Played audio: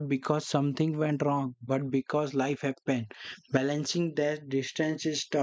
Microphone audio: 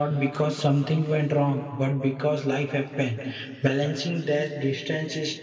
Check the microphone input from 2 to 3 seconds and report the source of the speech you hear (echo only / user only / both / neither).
echo only